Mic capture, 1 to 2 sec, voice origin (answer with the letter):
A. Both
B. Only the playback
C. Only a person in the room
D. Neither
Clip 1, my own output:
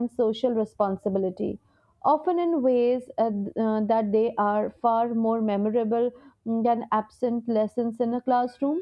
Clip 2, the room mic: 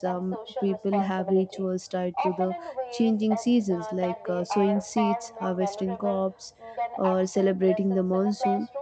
A